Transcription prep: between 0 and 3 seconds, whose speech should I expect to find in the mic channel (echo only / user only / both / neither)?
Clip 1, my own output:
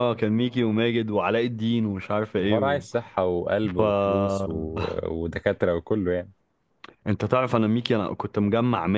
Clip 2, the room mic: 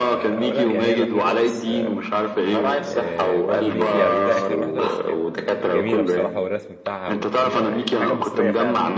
both